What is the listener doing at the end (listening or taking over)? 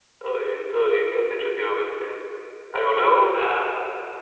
taking over